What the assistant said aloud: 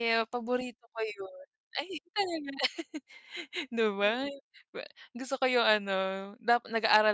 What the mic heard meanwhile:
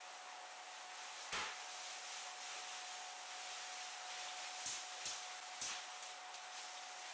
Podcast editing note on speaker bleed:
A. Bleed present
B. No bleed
B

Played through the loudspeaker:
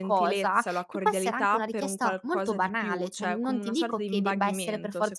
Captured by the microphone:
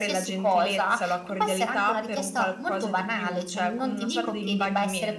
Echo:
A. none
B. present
B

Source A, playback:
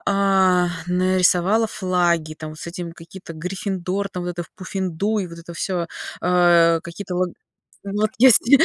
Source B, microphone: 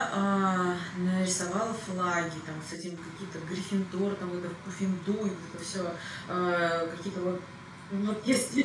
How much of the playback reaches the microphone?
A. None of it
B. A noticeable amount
B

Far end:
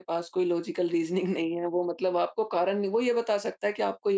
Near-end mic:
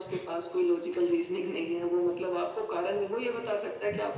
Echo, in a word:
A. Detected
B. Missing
A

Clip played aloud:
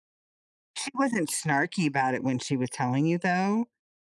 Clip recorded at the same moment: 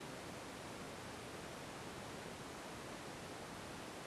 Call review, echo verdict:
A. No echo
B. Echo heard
A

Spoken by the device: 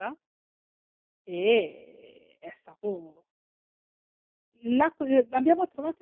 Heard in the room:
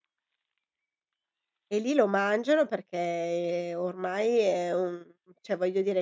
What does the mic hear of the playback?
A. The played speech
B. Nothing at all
B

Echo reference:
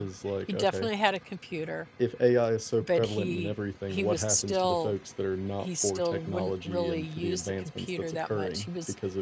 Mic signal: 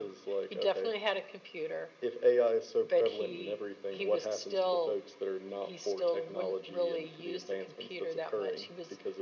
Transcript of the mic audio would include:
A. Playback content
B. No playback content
A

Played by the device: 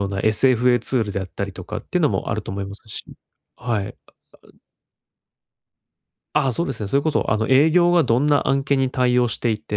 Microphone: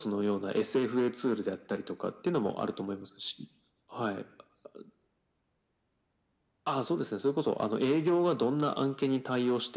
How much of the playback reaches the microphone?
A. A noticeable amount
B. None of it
A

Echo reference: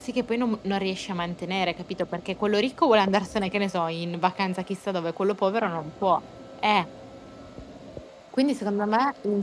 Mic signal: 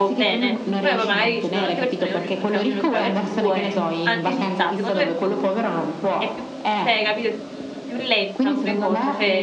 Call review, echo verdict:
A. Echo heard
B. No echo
A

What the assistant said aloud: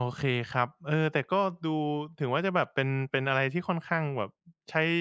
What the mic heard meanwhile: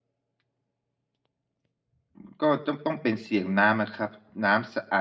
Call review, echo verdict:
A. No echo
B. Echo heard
A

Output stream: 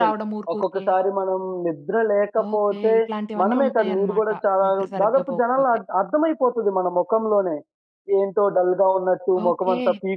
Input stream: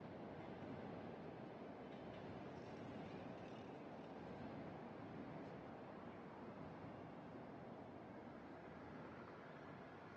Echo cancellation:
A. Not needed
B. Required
A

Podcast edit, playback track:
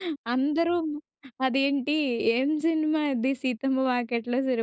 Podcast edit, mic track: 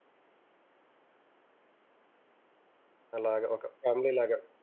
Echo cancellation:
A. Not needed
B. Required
A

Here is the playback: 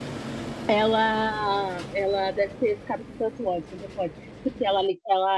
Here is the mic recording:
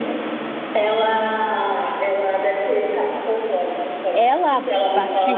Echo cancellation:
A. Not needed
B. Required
B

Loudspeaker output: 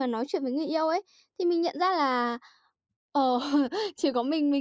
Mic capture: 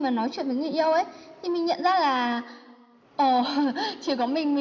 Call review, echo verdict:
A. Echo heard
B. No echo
A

